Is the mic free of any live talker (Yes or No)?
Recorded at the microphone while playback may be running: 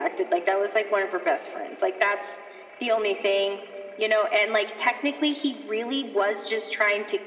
Yes